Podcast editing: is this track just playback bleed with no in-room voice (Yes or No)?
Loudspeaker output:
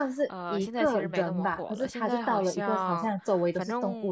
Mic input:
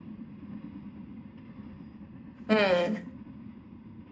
No